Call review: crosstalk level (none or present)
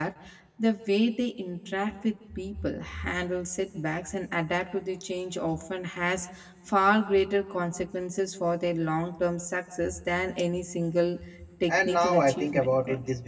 present